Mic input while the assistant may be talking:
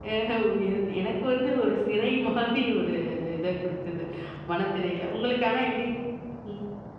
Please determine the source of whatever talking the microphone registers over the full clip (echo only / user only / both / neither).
user only